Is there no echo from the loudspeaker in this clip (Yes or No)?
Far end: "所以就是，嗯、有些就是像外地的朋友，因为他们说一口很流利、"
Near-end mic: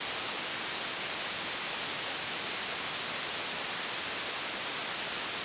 Yes